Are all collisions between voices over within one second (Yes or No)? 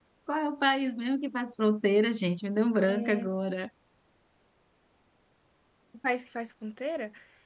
Yes